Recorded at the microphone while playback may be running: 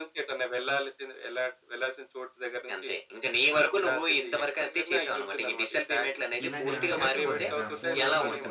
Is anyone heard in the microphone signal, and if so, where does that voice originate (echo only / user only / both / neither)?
both